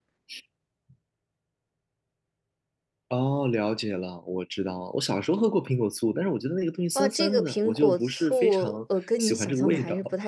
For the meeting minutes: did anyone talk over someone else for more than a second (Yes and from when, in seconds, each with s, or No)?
Yes, from 7.0 s